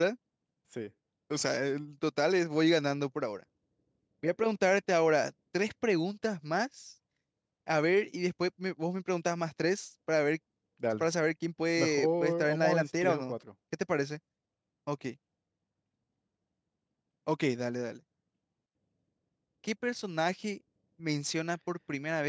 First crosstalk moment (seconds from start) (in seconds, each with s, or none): 11.8 s